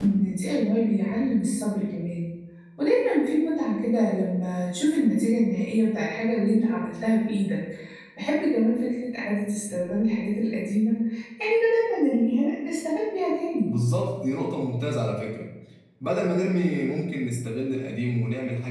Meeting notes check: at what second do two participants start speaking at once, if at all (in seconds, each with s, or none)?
none